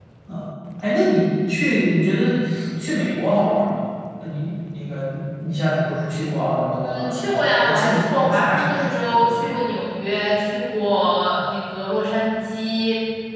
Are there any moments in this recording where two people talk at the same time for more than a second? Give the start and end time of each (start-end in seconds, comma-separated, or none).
6.8-9.6